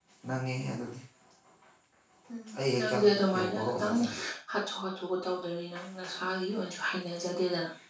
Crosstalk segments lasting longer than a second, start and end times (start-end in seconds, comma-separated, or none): 2.7-3.9